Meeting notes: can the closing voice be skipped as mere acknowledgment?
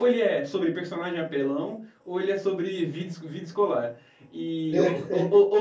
Yes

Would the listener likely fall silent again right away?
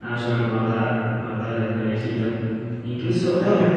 Yes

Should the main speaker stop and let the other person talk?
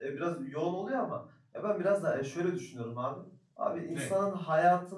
No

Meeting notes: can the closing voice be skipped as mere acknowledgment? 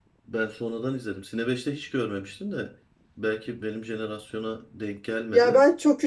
No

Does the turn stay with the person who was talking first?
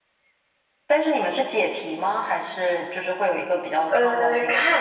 No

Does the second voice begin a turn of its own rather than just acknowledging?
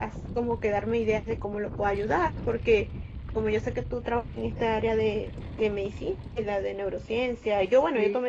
No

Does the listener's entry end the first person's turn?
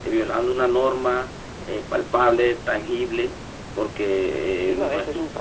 Yes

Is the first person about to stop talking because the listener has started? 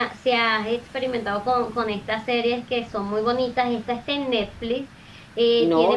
Yes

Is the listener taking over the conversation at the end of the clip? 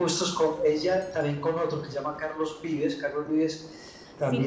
Yes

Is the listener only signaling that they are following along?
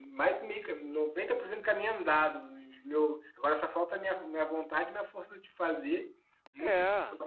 Yes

